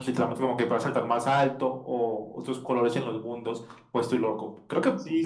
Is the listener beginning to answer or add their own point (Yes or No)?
Yes